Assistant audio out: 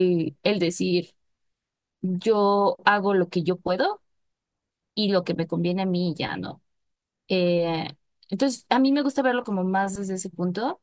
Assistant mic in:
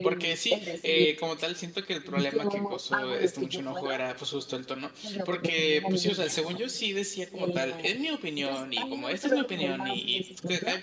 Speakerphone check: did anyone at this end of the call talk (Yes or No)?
Yes